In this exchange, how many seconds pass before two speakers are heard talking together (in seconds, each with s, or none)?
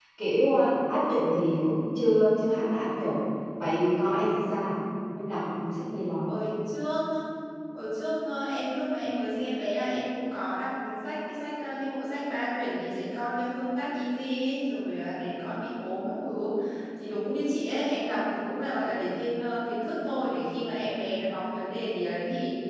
none